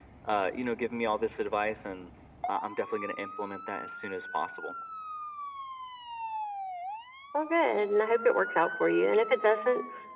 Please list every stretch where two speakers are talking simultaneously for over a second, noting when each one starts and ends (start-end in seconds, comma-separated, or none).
none